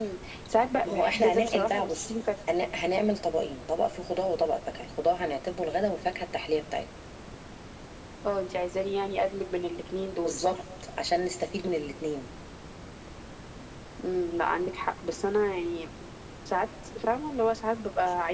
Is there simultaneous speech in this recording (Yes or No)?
Yes